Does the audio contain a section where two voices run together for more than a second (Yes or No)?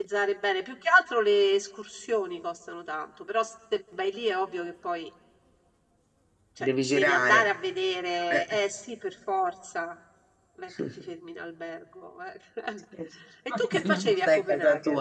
Yes